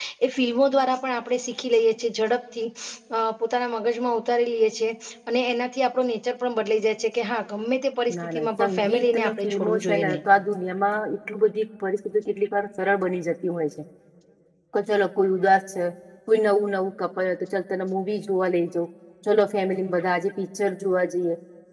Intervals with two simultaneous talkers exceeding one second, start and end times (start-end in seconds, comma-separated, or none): 8.3-10.2